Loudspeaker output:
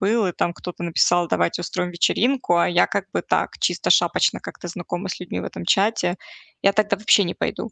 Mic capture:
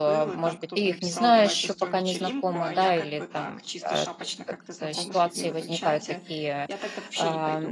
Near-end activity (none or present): present